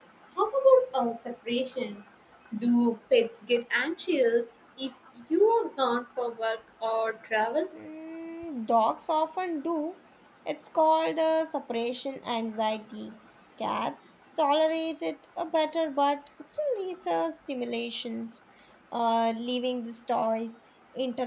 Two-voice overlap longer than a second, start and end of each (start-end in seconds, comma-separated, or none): none